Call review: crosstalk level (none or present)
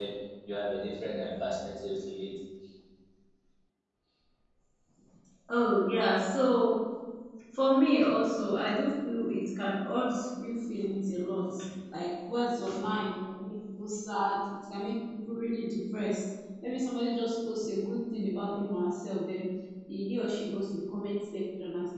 none